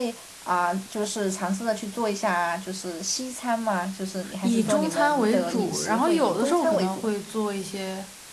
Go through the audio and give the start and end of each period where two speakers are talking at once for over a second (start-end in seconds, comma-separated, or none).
4.4-7.1